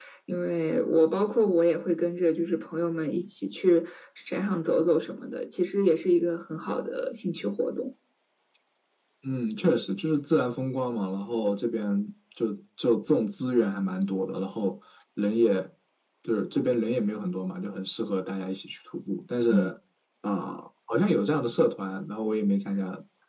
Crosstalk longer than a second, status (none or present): none